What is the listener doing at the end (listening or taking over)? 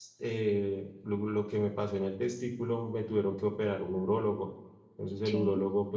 listening